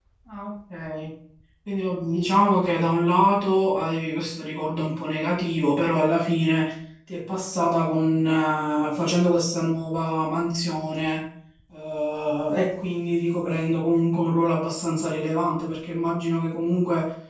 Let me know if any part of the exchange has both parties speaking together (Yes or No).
No